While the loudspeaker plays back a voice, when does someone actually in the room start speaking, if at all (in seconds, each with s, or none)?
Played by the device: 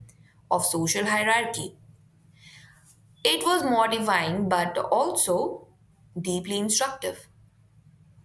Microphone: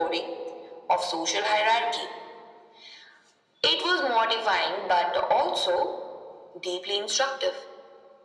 none